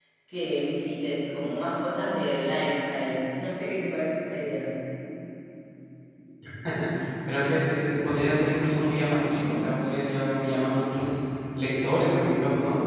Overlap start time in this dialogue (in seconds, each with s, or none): none